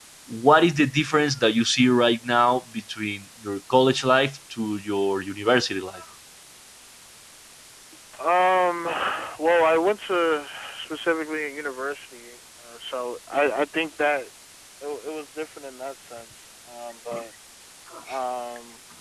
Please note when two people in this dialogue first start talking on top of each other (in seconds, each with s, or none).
none